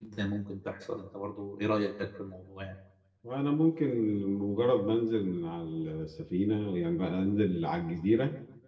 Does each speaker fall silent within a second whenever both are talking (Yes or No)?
Yes